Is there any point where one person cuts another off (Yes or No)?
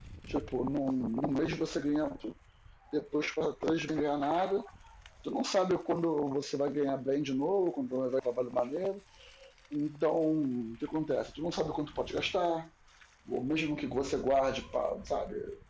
No